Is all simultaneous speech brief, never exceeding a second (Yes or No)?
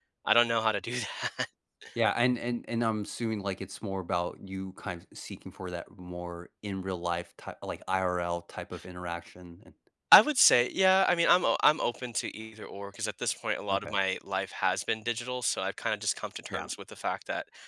Yes